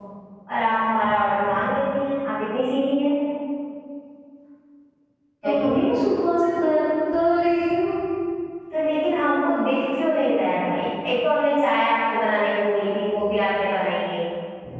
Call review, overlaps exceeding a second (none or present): none